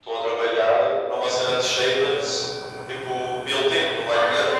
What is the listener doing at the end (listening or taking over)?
taking over